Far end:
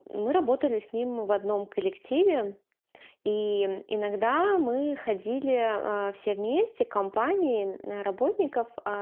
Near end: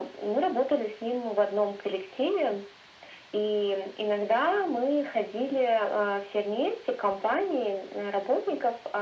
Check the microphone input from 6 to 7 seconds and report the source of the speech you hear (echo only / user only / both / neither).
echo only